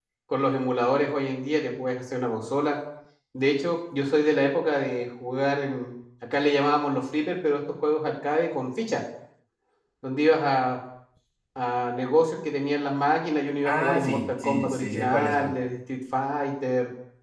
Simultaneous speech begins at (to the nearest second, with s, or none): 14 s